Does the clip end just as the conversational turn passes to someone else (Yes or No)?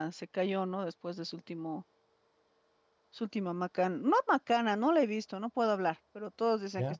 No